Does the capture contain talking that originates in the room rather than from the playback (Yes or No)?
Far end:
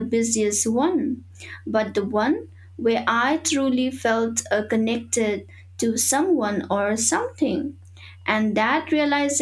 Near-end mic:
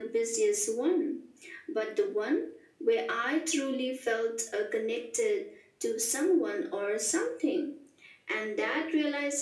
No